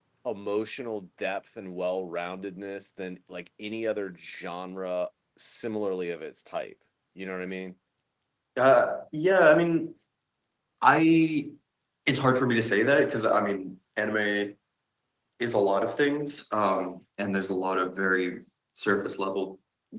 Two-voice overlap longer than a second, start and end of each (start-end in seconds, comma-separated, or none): none